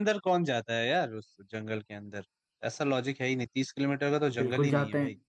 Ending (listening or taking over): taking over